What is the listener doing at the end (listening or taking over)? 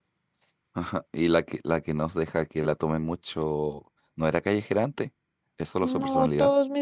taking over